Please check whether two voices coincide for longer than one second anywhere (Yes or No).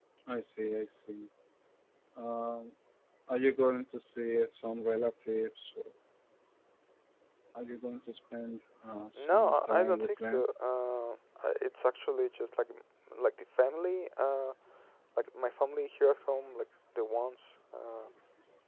Yes